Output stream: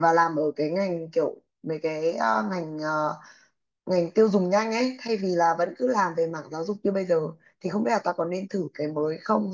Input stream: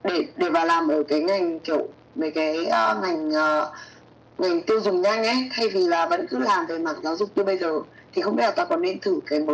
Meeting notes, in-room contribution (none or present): none